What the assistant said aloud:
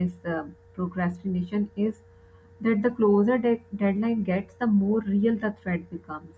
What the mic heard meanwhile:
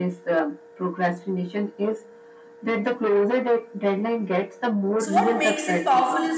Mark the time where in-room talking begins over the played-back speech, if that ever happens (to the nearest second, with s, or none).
5 s